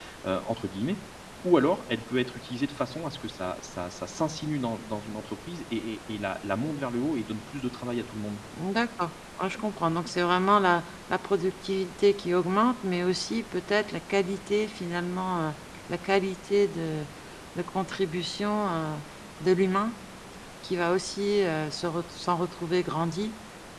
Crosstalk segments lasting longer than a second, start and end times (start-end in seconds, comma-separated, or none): none